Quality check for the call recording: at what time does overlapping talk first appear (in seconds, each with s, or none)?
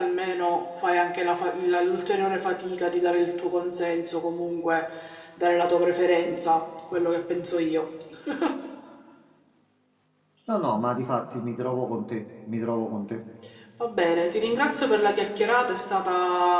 none